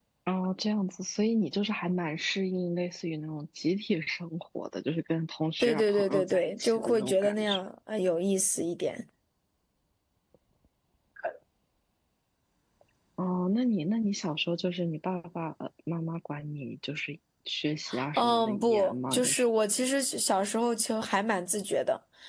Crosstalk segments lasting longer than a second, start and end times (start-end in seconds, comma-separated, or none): 5.6-7.6, 18.2-19.5